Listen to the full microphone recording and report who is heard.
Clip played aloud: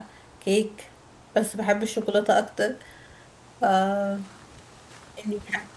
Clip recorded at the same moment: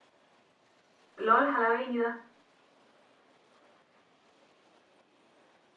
user only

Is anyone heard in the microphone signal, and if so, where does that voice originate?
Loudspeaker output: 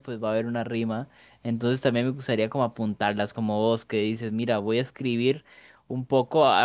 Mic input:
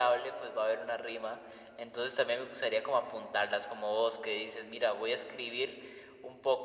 echo only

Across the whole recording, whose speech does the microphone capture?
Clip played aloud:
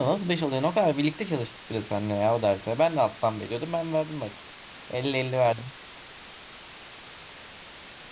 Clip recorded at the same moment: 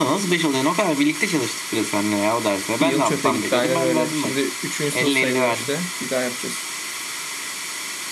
both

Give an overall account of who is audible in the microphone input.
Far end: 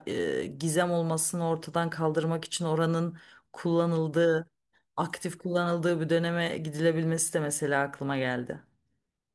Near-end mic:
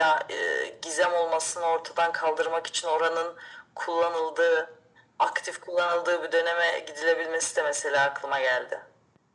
echo only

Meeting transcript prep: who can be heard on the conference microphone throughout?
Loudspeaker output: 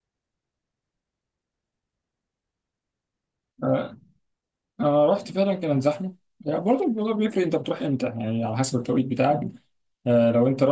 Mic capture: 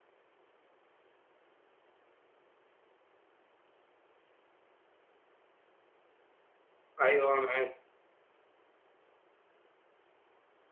user only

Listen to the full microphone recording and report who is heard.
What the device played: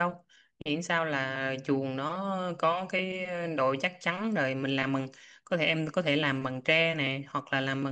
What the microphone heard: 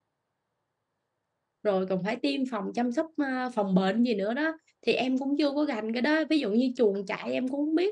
user only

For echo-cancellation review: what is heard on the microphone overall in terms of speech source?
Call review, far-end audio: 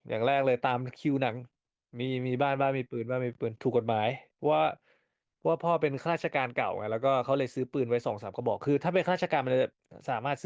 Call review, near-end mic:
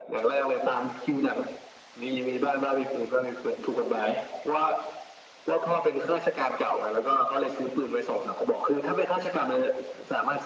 echo only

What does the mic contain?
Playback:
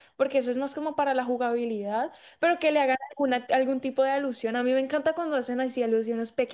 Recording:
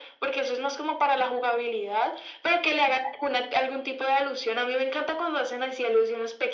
echo only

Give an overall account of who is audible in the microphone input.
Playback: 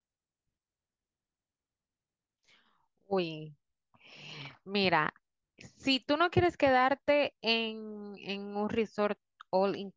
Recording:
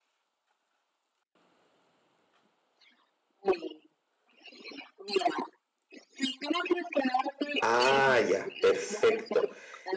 both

